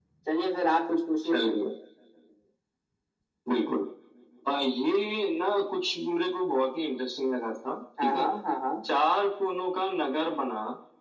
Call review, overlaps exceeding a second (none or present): none